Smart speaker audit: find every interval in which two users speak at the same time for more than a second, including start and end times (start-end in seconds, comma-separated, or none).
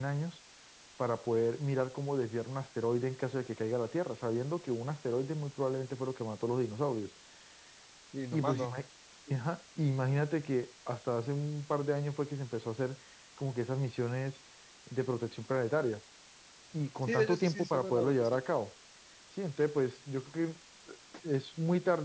17.0-18.4